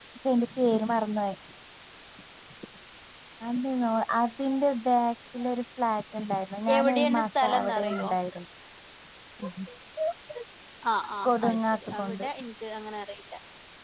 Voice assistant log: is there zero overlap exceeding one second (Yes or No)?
No